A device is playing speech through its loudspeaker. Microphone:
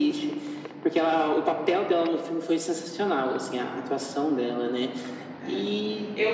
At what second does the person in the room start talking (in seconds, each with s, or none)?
5.4 s